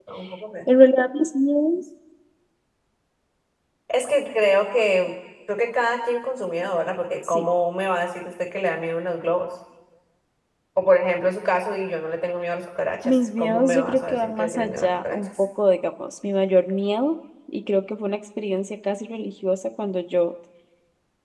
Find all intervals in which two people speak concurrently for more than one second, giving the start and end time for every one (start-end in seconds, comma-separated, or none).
13.1-15.4